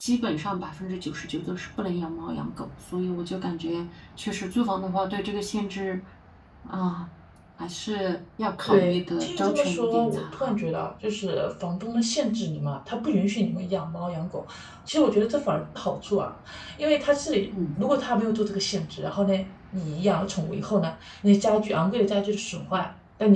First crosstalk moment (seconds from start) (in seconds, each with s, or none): 8.6 s